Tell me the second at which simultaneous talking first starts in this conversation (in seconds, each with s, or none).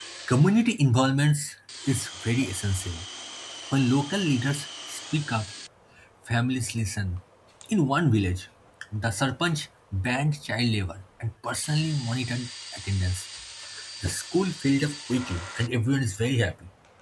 none